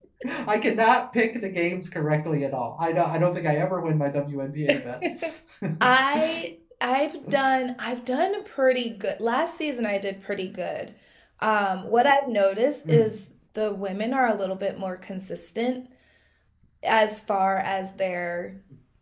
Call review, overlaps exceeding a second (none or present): none